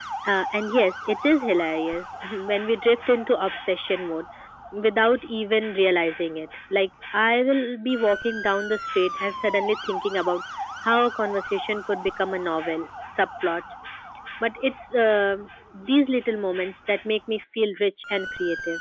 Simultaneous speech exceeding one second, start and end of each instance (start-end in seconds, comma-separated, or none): none